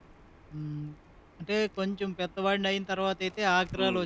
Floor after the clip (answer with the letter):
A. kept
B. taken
A